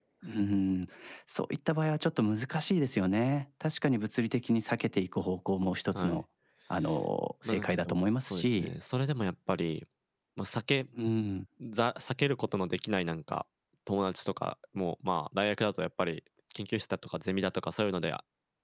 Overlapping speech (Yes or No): Yes